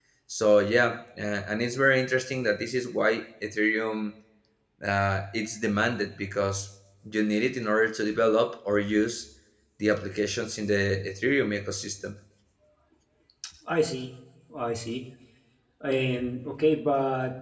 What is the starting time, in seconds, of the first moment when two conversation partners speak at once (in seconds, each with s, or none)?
none